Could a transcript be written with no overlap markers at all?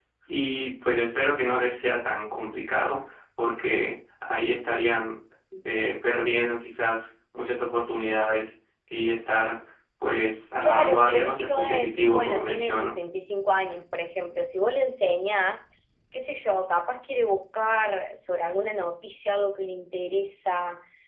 No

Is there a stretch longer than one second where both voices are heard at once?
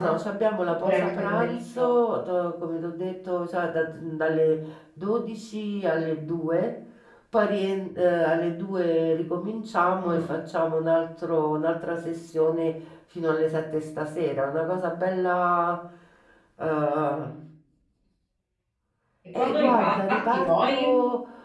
Yes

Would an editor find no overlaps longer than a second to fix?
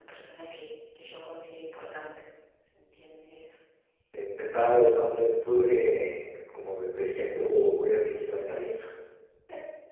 Yes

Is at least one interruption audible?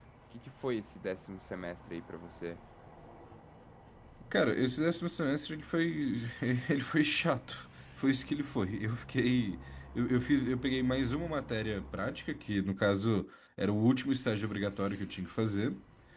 No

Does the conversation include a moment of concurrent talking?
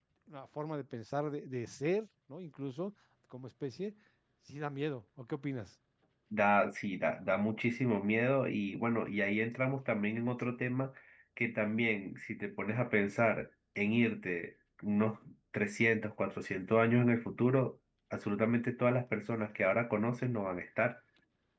No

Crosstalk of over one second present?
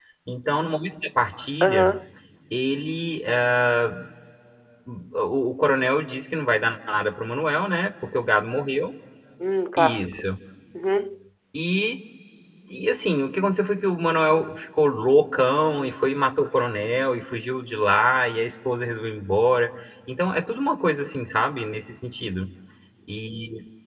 No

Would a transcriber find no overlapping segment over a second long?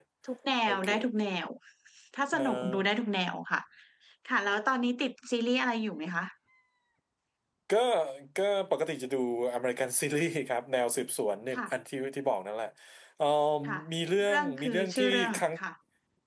No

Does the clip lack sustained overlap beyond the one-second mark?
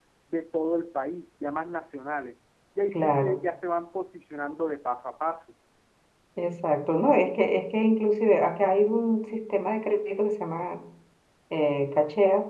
Yes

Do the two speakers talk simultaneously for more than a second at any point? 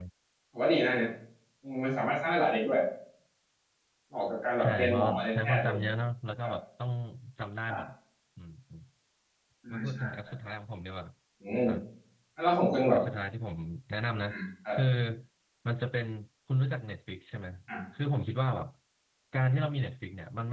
Yes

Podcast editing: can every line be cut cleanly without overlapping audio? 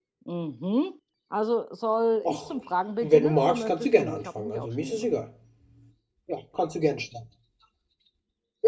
No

